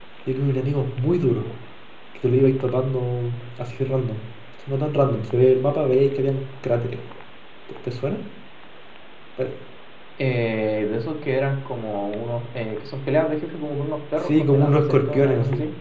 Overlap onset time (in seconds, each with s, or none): 14.3 s